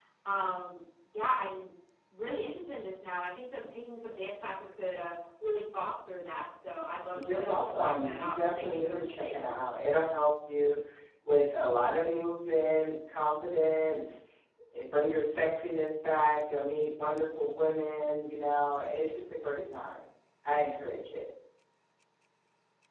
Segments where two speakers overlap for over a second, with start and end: 7.3-9.6

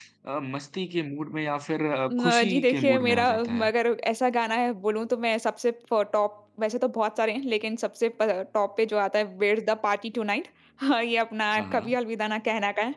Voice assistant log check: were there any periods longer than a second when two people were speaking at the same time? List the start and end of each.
2.1-3.7

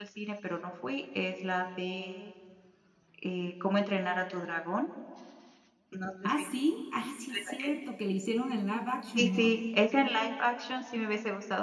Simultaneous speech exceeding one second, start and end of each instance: none

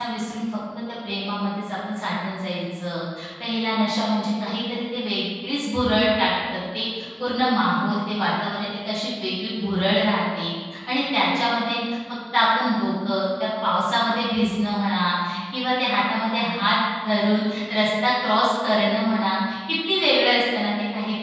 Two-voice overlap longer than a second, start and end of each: none

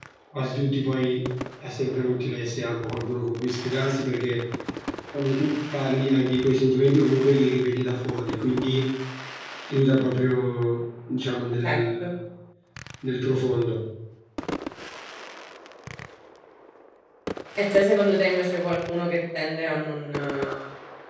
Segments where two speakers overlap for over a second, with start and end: none

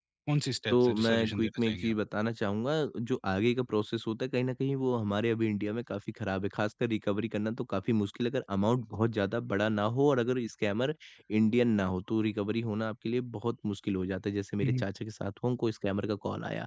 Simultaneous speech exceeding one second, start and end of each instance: 0.7-1.9

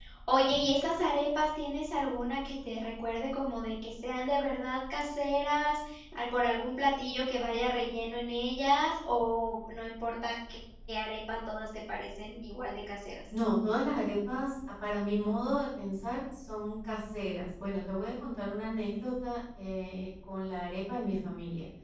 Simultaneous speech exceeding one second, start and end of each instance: none

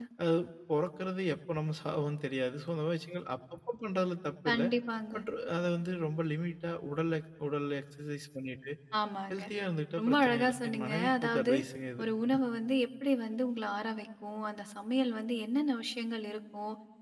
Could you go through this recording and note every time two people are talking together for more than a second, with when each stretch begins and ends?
10.0-11.5

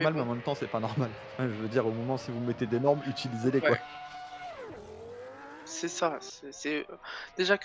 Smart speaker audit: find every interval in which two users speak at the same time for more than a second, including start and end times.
none

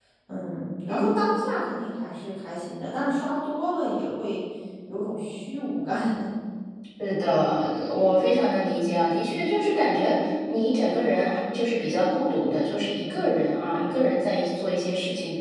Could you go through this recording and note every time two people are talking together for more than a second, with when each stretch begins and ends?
none

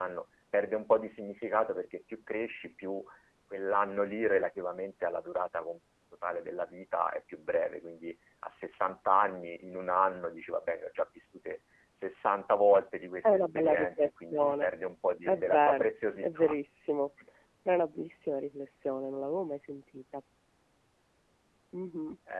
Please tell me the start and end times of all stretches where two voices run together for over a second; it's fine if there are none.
13.2-14.7, 15.3-16.6

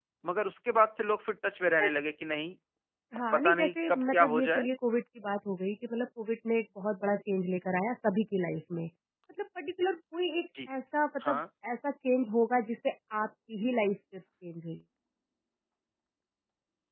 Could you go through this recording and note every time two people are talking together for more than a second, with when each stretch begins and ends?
3.3-4.7

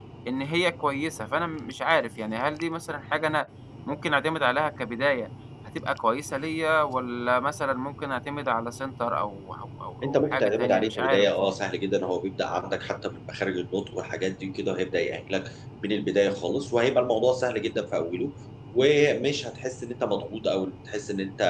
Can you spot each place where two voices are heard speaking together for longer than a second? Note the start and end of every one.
10.0-11.5

